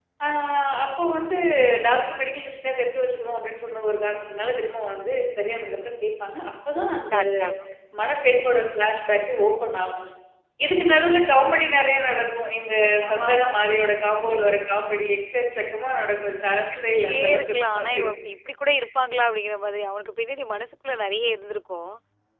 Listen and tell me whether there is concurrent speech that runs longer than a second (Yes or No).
Yes